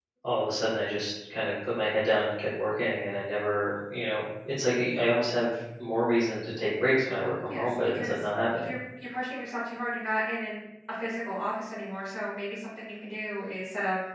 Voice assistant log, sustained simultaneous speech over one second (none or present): present